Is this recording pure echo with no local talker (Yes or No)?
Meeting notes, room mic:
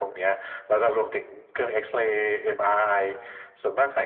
Yes